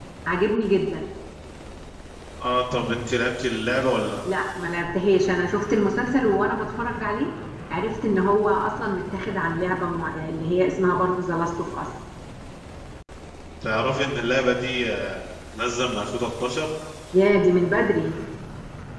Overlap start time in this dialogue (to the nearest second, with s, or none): none